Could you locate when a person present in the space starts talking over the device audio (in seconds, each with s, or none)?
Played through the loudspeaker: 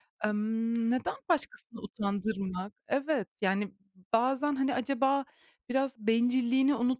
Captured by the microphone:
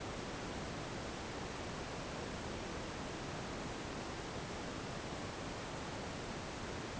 none